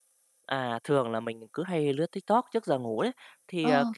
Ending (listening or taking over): listening